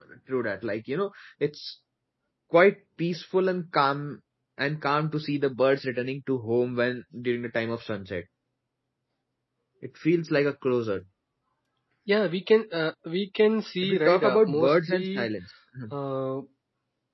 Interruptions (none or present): present